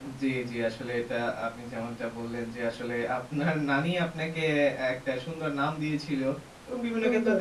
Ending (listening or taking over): listening